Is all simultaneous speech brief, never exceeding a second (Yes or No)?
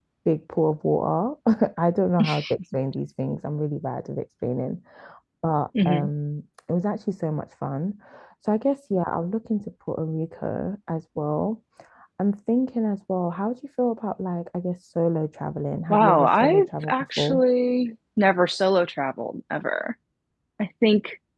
No